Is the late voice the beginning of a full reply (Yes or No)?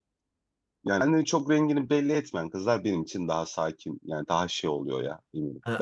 Yes